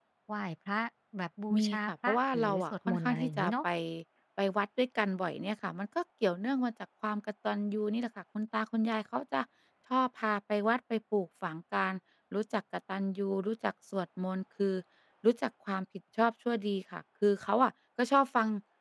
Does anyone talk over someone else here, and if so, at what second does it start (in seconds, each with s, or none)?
1.6 s